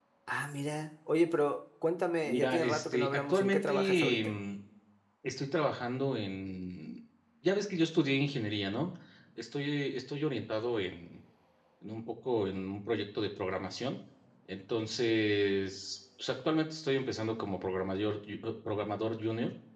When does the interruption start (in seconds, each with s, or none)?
2.2 s